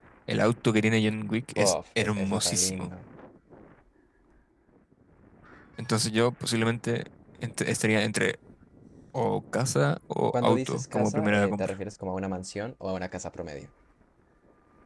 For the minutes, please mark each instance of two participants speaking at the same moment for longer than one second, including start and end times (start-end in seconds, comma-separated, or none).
1.6-2.9, 10.3-11.7